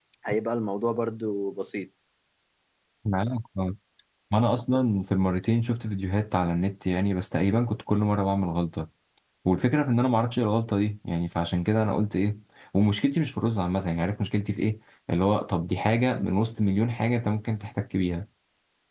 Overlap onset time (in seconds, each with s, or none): none